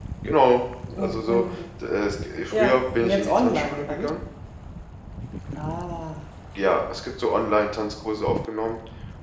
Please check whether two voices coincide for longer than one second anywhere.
Yes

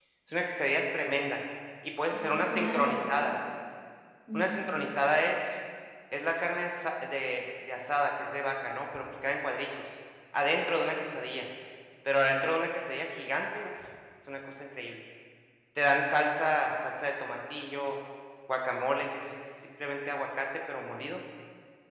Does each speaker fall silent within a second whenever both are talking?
No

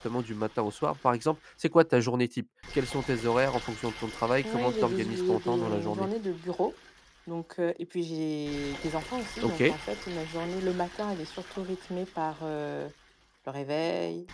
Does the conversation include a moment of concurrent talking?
Yes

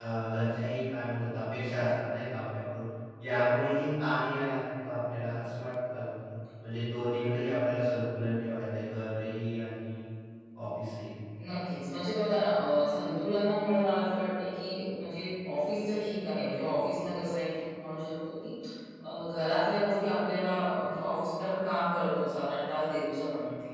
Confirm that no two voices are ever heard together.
Yes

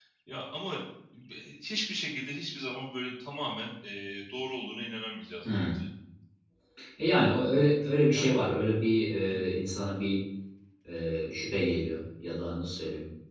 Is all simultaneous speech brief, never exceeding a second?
Yes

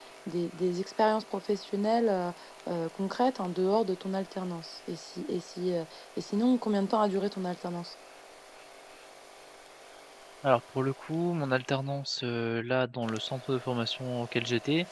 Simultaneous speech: No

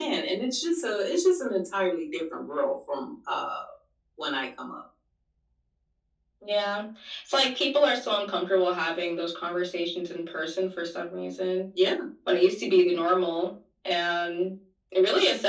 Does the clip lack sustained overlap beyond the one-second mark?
Yes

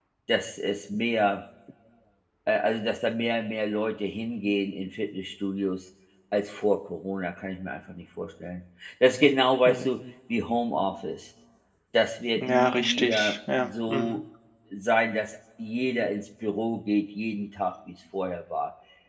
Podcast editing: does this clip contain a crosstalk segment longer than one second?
Yes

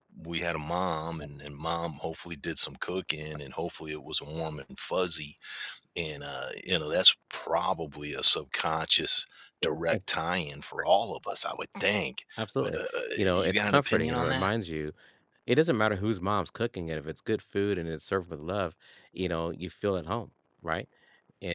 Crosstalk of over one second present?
Yes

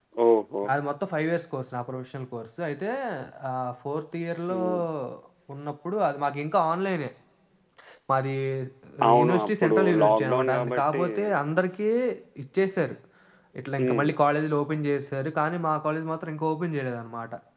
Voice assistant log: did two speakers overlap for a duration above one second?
Yes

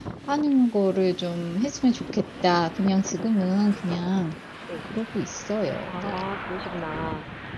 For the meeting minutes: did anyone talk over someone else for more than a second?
No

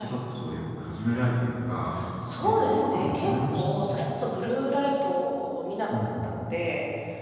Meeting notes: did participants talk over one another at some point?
Yes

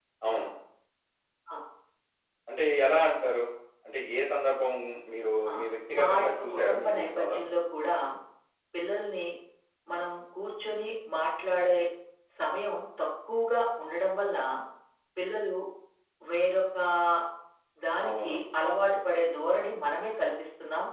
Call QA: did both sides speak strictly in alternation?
No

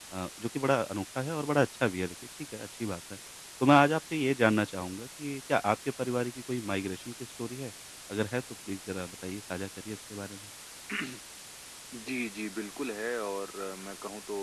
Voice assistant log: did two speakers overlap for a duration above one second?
No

